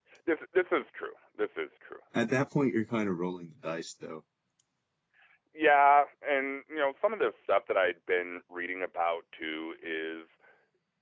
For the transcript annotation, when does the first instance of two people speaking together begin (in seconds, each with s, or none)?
none